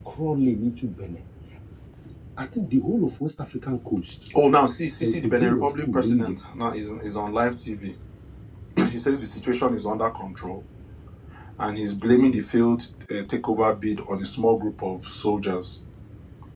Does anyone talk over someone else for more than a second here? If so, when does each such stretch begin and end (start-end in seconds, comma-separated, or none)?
5.0-6.4